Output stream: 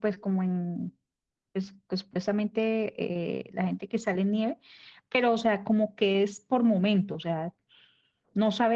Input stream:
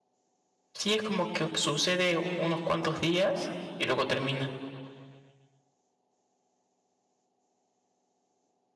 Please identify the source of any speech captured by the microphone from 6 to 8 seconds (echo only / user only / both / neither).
neither